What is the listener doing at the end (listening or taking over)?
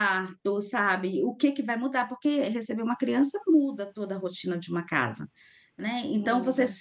listening